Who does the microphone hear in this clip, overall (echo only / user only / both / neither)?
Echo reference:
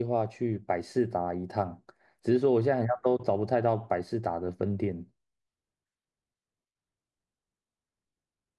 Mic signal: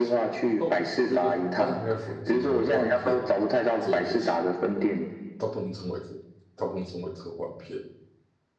both